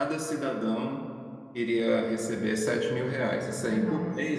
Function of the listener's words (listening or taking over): listening